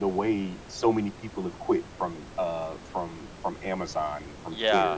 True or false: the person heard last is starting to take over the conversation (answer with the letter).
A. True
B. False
A